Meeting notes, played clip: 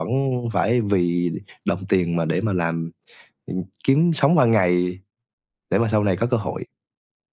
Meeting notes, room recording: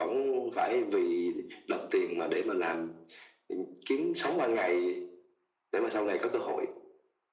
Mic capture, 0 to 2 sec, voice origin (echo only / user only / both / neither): echo only